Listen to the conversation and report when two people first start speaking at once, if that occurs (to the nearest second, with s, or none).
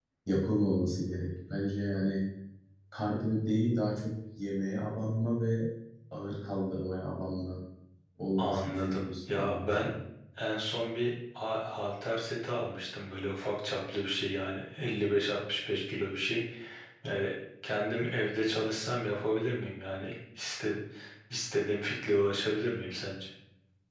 8 s